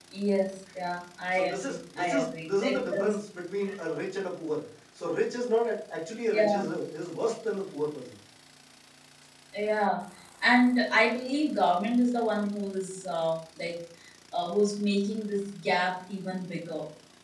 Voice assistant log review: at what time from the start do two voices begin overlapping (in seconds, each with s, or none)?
1.3 s